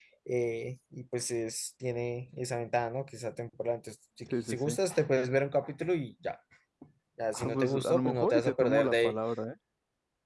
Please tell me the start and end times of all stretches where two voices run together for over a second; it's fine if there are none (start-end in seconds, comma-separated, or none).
7.3-9.1